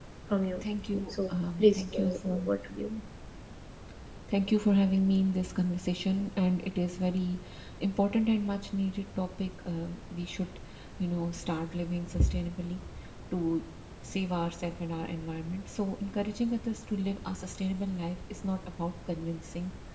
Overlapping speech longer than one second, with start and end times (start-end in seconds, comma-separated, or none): 1.1-2.4